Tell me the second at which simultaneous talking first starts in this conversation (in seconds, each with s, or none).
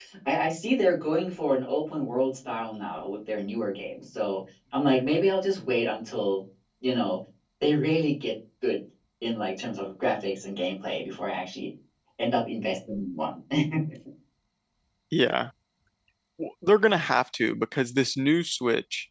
none